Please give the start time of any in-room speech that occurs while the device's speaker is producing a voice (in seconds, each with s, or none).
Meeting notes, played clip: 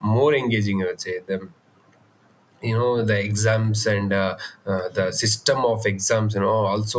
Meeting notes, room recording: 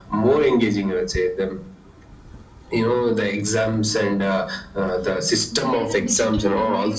5.5 s